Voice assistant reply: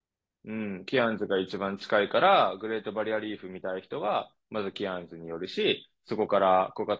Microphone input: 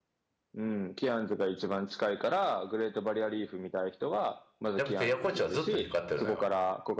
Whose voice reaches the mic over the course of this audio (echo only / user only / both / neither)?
both